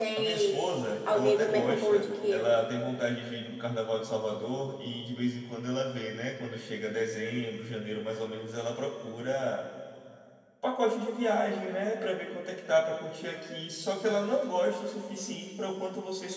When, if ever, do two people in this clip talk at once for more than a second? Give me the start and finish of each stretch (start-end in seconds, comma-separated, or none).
1.1-2.5